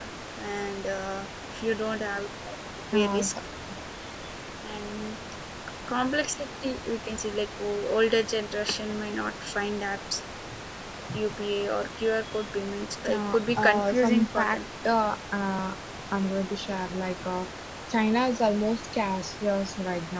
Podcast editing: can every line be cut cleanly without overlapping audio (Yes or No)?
No